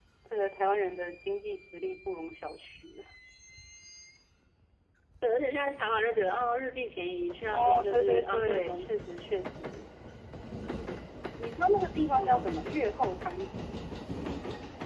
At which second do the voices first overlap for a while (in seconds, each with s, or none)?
7.5 s